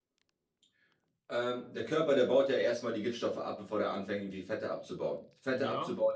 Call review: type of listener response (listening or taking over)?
listening